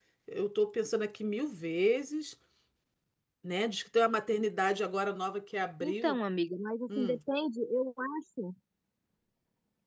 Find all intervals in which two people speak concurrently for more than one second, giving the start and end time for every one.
none

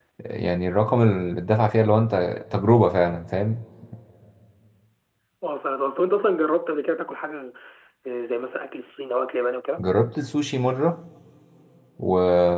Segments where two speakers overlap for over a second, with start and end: none

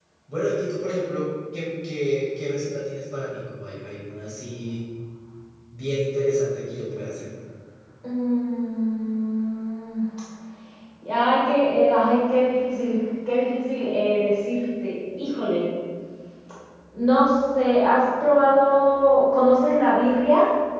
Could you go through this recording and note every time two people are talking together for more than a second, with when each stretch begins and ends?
none

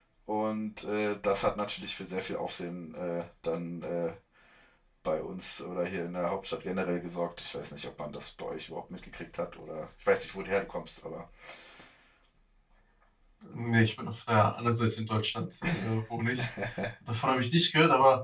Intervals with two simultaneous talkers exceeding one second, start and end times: none

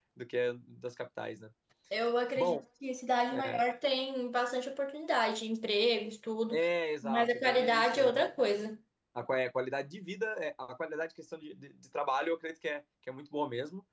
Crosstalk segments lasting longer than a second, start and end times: 7.0-8.2

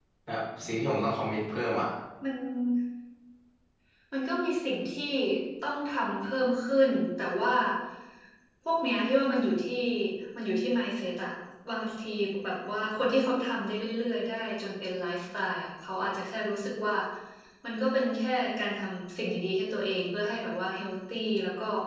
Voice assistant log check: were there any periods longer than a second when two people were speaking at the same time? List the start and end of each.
none

